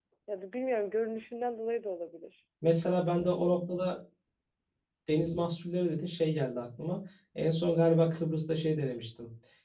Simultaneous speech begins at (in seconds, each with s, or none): none